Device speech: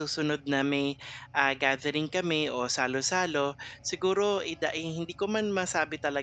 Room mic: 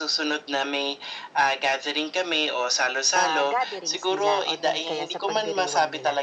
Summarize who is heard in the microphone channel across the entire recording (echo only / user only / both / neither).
both